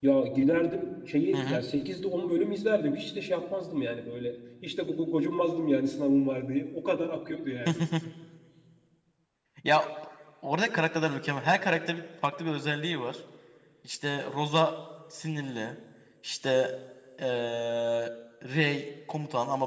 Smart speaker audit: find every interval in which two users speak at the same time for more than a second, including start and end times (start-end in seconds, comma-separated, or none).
none